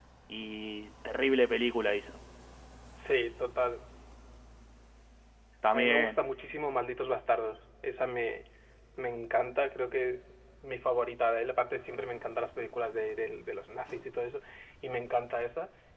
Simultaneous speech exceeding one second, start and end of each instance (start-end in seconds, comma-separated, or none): none